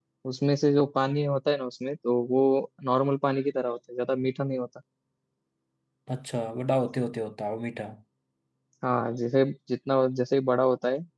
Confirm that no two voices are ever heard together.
Yes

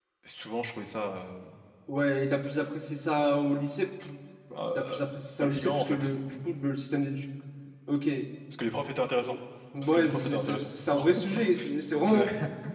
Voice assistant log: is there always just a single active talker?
No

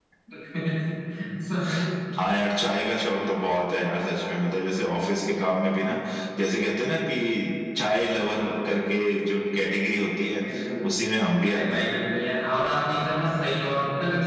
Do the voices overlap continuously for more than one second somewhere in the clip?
No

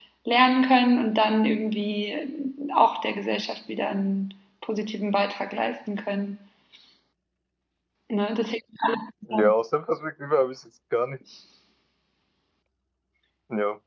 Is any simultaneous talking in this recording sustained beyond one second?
No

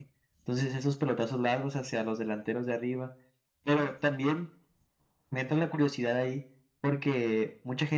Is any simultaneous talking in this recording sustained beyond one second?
No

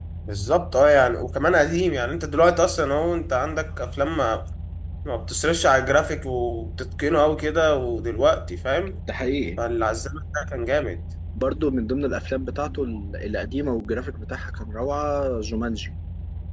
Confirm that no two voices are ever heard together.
Yes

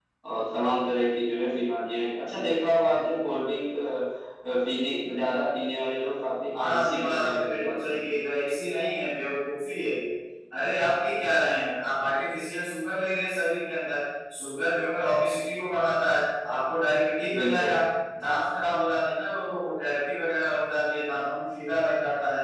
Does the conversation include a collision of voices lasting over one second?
Yes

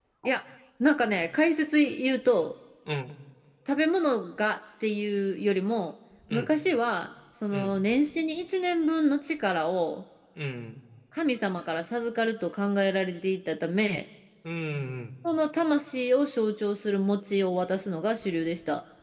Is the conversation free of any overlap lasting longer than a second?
Yes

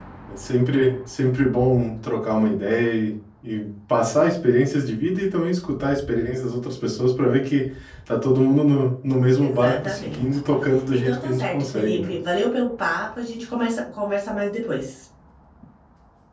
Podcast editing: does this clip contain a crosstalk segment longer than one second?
Yes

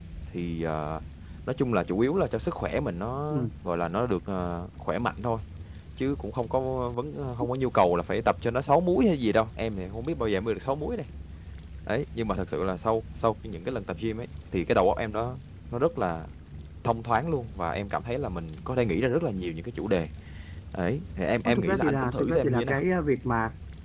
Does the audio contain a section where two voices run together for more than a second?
Yes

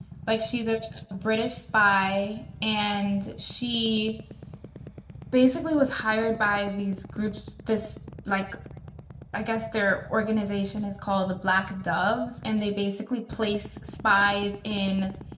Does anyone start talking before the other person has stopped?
No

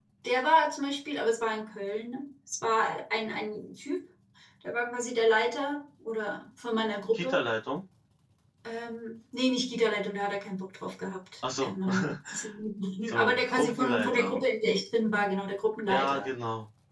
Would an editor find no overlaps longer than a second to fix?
No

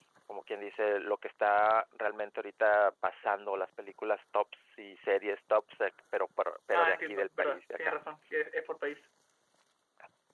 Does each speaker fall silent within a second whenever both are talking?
No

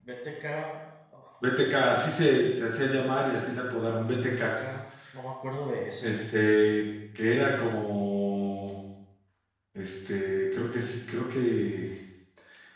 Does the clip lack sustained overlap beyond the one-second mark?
Yes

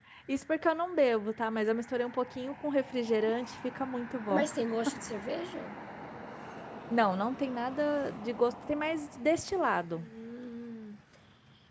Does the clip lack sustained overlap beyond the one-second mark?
Yes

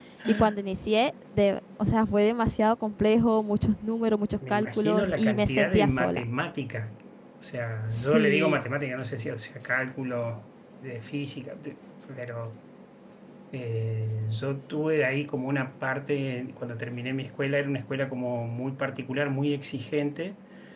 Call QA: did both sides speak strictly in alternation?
No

